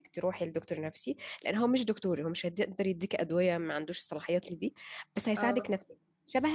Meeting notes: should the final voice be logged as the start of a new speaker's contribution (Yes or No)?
No